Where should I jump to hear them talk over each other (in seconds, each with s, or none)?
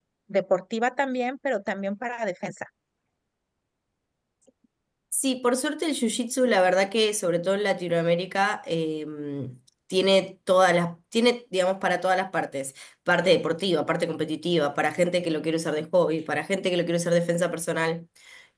none